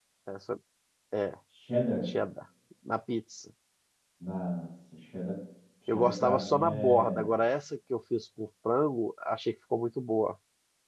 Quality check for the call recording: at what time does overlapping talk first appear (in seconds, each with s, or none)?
5.9 s